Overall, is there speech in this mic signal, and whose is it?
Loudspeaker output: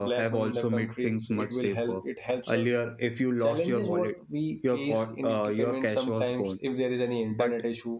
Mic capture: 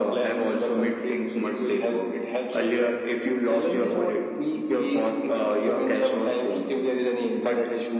echo only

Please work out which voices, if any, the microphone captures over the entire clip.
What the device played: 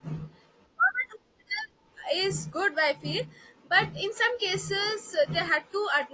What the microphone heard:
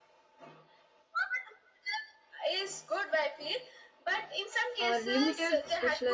both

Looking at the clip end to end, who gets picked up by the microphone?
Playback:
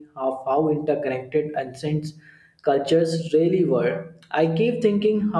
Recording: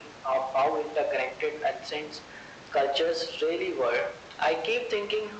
echo only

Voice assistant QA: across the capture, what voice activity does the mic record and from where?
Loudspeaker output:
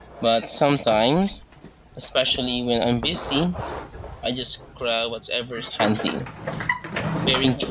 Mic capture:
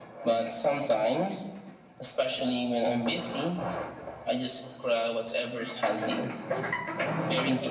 both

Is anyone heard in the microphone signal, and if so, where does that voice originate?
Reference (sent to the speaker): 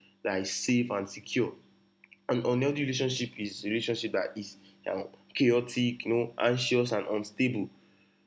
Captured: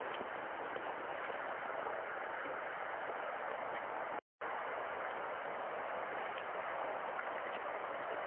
neither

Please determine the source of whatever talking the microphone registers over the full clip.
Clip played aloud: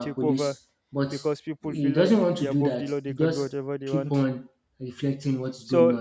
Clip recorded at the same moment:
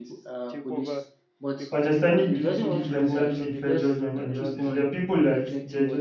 both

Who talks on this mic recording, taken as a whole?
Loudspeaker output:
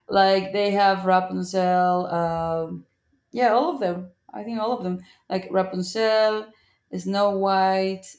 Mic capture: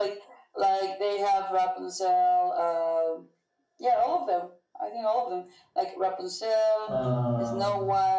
both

